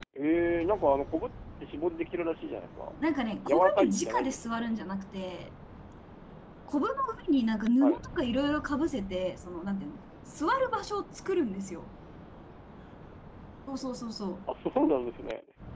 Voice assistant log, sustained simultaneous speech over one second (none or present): present